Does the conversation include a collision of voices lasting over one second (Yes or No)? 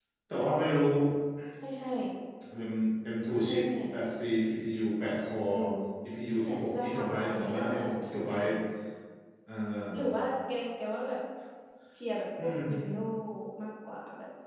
Yes